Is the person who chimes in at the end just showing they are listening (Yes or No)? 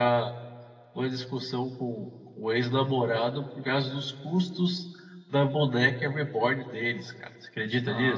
No